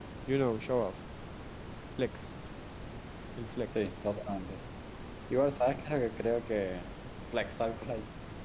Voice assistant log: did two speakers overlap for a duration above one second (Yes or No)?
No